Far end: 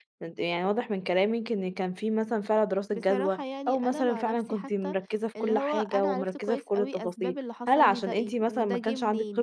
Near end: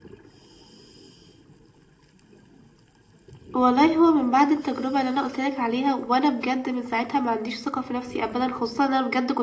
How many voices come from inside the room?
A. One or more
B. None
A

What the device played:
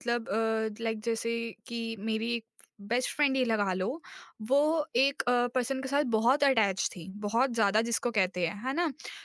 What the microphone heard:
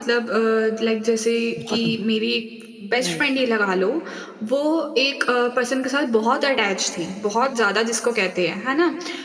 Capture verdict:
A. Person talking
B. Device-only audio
A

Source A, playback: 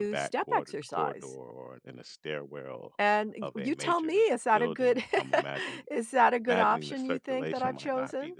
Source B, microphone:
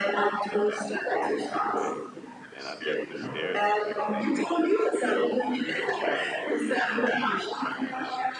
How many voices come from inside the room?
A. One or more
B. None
A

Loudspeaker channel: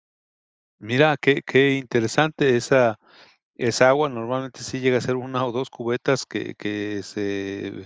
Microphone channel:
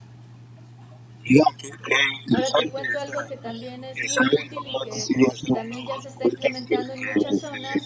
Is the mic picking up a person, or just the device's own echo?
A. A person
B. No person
A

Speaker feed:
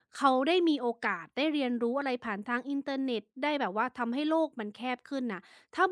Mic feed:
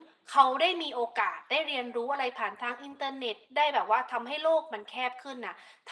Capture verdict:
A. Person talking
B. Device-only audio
B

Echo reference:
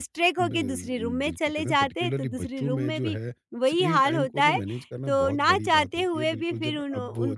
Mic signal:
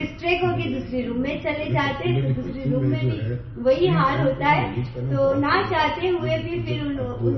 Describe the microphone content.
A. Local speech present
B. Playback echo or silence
B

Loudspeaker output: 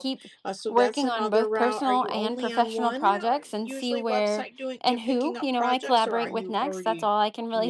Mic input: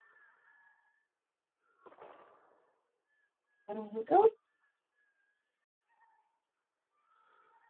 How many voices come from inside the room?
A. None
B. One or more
B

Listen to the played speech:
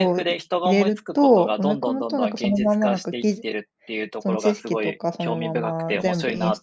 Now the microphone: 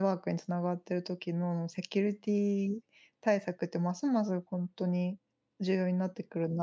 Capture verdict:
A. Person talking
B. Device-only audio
A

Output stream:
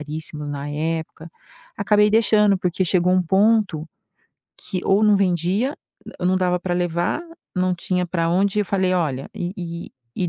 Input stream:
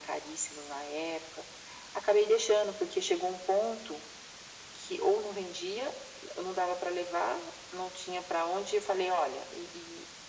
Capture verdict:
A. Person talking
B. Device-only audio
B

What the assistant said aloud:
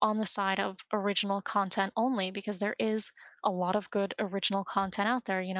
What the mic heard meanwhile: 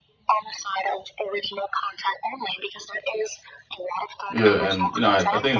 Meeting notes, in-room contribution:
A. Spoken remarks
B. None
A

